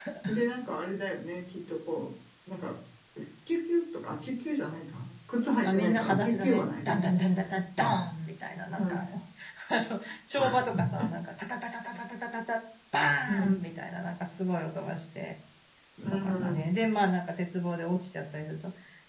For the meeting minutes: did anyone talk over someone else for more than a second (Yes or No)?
Yes